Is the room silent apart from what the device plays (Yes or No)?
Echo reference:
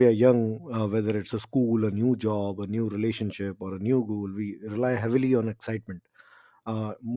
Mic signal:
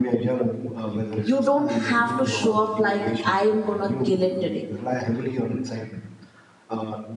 No